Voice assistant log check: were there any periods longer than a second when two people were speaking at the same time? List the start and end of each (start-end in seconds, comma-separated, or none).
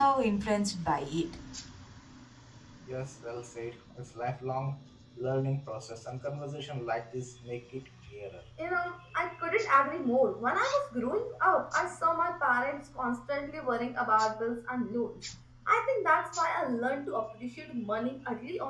none